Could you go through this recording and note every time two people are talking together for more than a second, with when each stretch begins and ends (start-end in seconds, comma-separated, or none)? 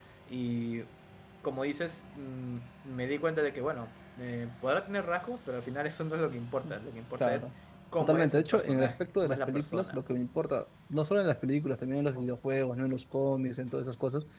8.0-10.0